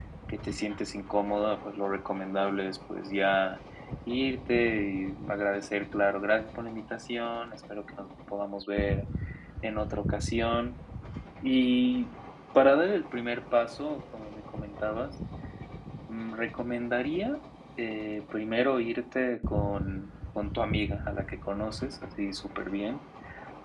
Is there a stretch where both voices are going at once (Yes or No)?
No